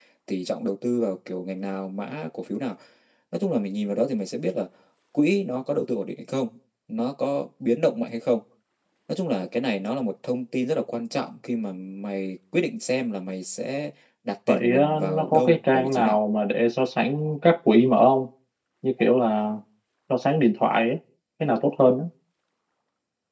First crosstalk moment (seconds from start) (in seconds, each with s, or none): 14.5 s